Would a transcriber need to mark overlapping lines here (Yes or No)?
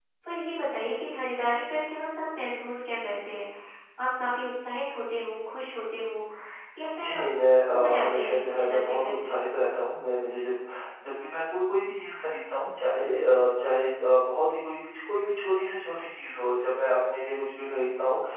Yes